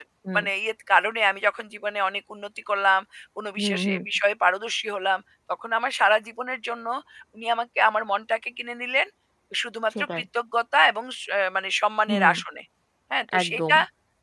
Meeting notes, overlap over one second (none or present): none